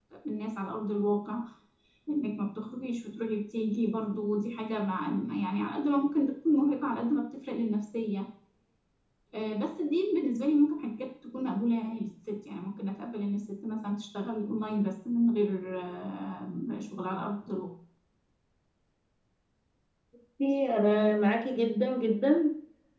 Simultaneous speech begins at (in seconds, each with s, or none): none